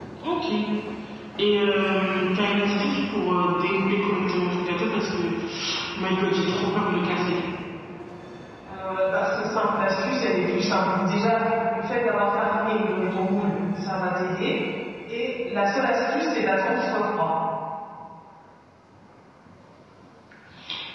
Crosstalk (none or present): none